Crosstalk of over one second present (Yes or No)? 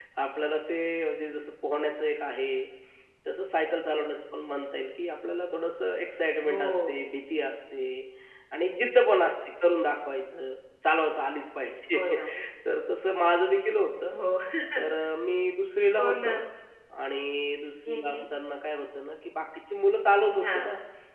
No